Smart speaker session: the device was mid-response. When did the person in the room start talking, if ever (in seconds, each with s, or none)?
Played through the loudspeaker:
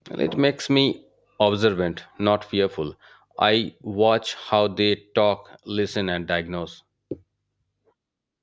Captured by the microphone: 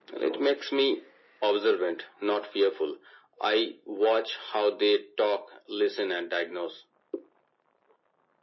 none